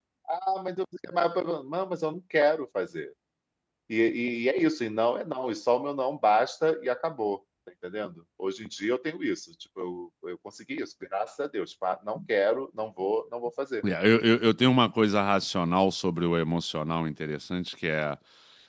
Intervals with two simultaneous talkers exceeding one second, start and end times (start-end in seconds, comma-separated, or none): none